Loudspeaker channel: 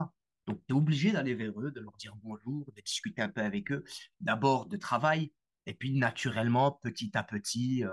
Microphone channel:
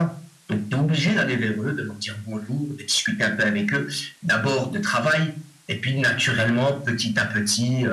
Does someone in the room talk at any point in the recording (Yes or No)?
No